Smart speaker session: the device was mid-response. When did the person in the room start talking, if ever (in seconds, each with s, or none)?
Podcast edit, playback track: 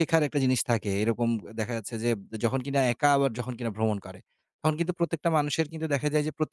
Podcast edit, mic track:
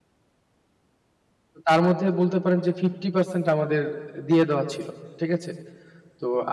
1.7 s